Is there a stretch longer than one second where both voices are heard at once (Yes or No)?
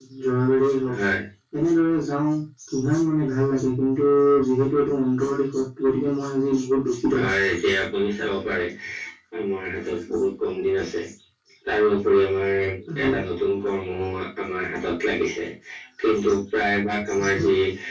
No